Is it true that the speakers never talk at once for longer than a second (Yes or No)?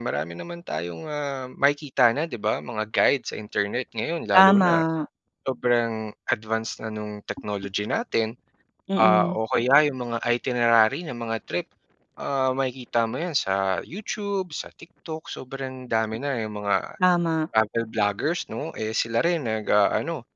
Yes